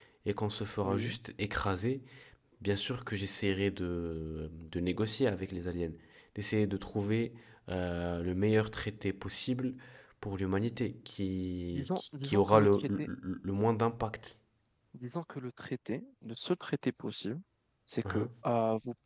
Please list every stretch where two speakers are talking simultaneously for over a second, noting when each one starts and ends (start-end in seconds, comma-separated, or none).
11.7-13.1